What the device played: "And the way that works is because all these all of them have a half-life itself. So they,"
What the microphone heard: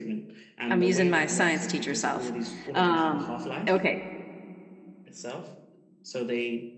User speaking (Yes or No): Yes